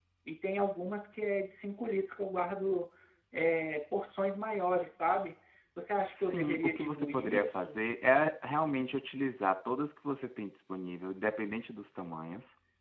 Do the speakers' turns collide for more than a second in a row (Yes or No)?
Yes